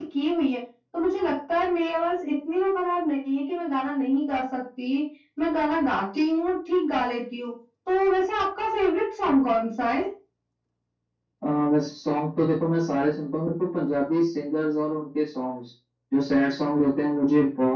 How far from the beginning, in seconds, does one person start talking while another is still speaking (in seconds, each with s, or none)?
none